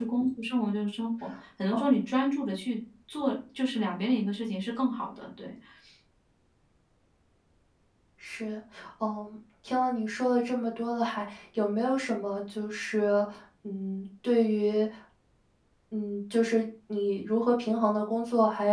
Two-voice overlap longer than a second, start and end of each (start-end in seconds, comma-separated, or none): none